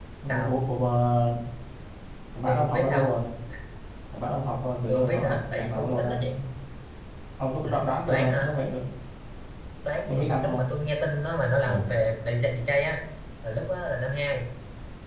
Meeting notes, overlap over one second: present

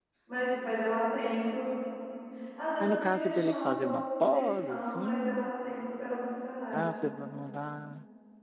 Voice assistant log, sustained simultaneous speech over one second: present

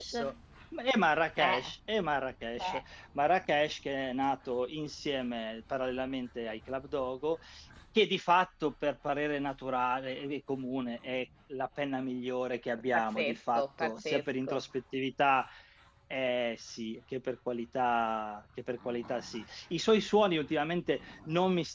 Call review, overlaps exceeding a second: present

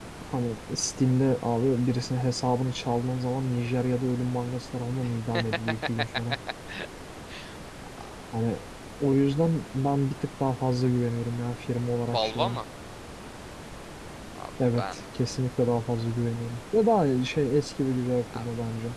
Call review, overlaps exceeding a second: none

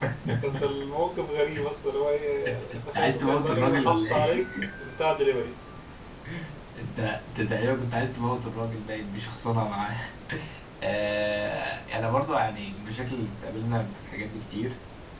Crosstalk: present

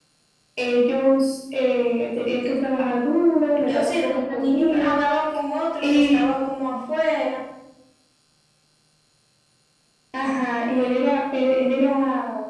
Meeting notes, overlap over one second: present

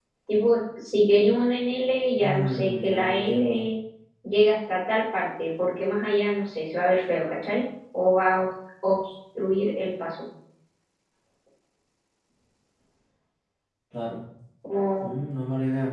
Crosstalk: present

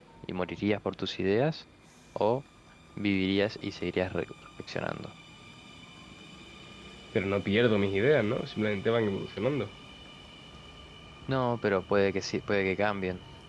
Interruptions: none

